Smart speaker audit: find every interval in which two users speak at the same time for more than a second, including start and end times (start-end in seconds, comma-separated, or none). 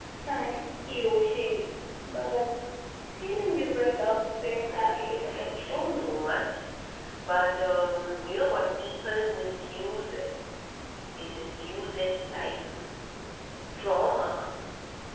4.7-6.1